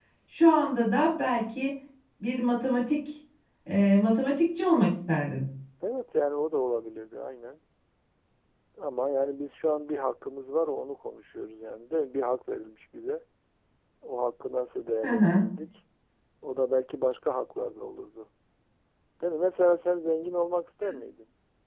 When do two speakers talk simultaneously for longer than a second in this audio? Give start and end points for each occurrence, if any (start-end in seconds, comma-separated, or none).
none